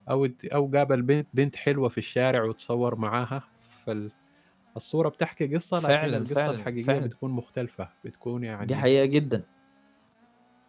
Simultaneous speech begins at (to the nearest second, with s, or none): 6 s